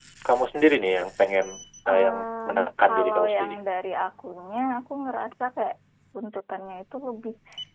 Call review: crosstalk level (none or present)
present